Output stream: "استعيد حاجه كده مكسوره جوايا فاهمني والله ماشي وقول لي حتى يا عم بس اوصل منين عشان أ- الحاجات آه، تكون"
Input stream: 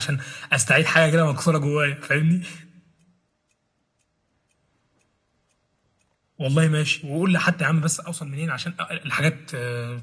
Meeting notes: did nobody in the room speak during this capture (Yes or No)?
Yes